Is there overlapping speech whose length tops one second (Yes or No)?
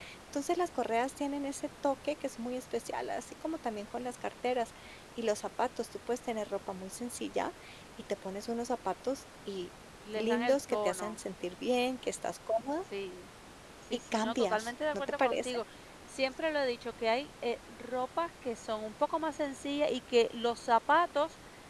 Yes